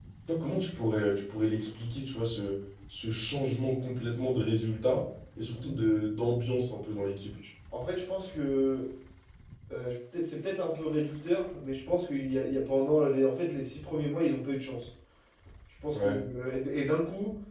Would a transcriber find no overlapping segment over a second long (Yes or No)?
Yes